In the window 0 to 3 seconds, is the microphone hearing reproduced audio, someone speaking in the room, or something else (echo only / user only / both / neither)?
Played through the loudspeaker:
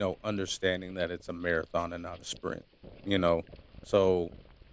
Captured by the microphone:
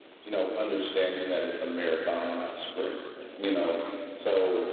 echo only